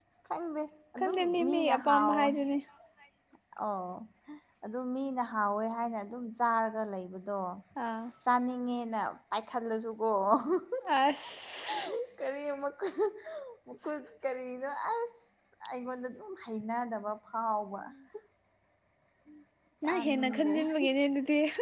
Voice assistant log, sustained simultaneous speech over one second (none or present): present